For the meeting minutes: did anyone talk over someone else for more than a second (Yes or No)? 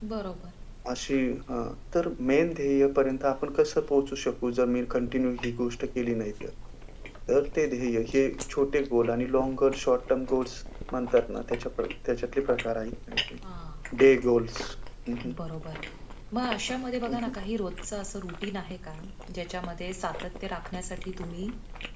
No